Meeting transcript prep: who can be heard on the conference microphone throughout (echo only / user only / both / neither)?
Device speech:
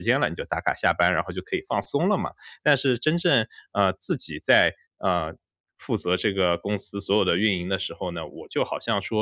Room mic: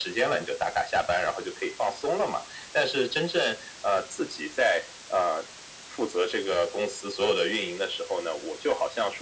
echo only